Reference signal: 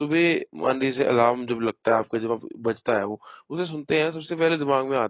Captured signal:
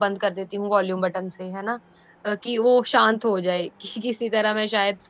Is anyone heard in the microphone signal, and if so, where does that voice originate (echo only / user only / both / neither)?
user only